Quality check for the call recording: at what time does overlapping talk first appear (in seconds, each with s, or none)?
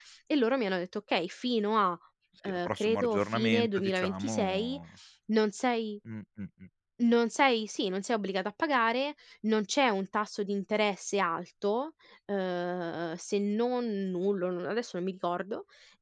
2.4 s